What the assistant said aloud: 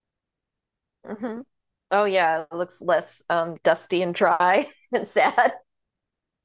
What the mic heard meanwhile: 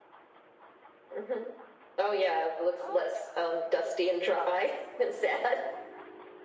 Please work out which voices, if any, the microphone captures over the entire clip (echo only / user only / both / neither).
both